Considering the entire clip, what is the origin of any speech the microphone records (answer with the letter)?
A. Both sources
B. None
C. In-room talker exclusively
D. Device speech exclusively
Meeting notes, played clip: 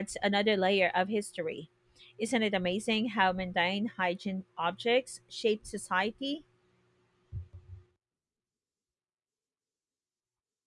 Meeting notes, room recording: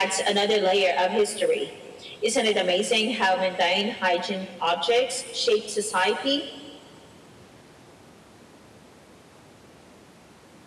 D